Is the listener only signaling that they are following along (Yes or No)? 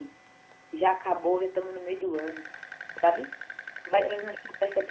Yes